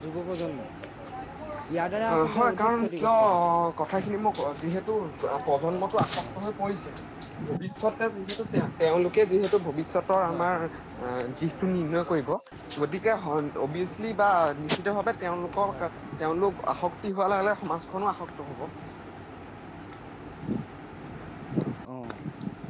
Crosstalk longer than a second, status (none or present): present